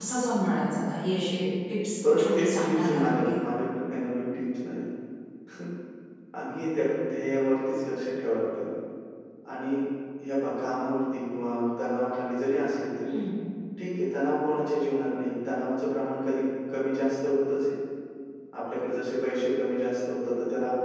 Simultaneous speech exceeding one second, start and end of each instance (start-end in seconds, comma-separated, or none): 2.2-3.4